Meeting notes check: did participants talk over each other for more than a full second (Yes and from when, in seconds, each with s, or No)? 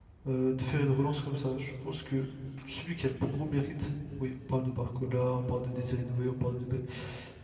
No